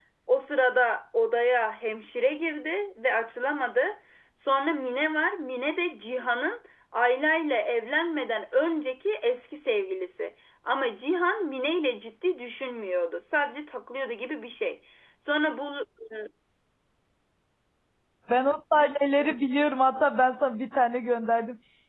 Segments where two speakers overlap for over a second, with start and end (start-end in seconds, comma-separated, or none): none